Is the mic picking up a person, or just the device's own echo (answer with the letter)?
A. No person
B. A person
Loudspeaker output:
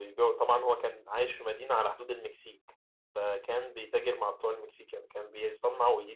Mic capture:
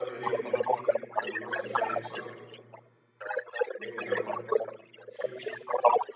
B